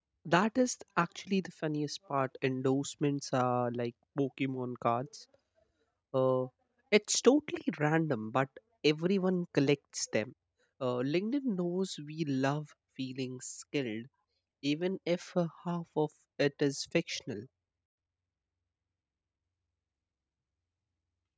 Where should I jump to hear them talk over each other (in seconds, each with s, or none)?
none